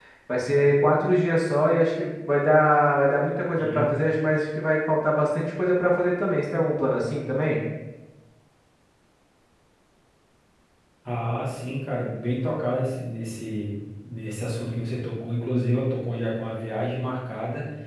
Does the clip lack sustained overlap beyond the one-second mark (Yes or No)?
Yes